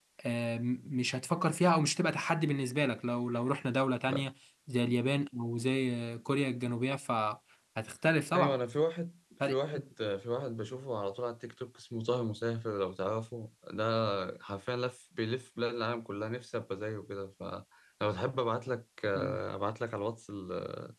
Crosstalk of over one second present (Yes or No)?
No